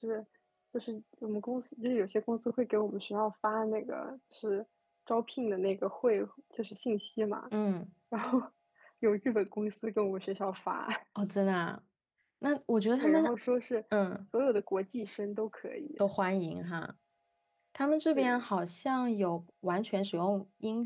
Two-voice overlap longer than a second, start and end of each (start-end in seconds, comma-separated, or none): none